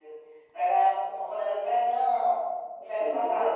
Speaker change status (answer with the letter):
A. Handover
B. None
A